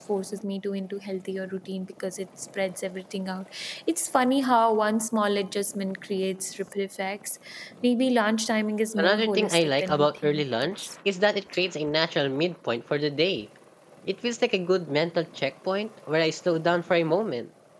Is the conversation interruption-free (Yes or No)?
No